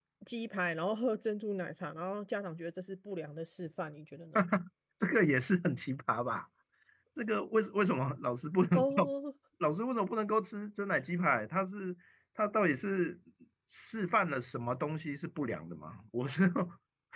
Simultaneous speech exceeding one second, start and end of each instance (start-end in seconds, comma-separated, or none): none